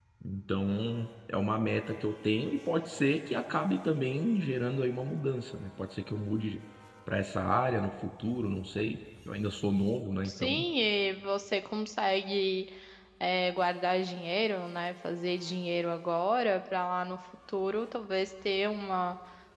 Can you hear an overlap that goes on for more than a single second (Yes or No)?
No